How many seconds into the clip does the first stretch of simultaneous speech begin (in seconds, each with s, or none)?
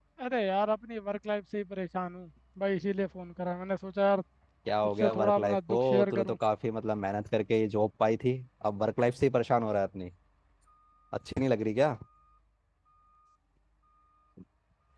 5.0 s